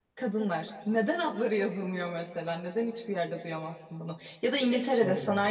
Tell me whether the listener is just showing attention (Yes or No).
Yes